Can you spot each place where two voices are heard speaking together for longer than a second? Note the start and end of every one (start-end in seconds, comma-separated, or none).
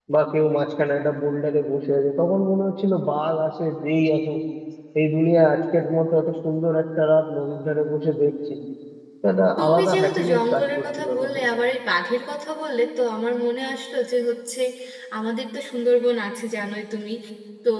9.6-11.4